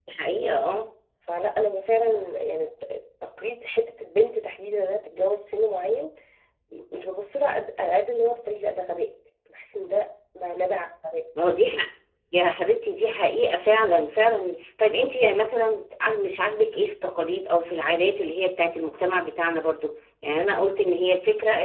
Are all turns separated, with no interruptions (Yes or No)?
Yes